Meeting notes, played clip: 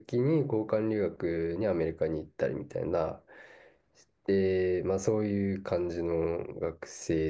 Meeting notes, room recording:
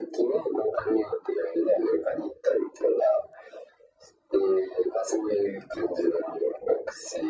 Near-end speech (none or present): none